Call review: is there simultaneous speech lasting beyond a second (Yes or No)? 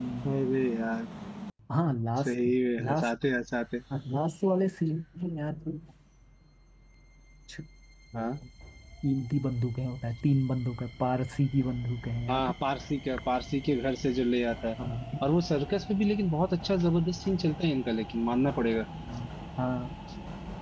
No